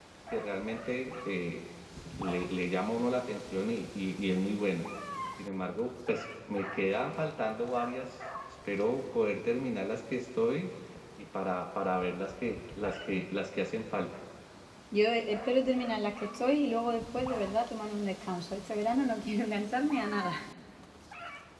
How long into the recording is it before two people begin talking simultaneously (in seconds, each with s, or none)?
none